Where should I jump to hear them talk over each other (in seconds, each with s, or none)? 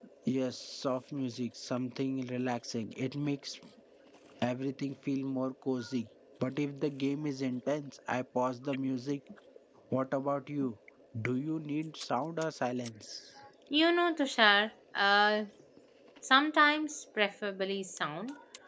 none